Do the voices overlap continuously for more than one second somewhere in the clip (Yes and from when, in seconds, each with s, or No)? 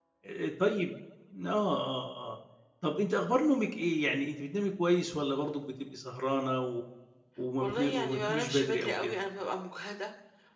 Yes, from 7.6 s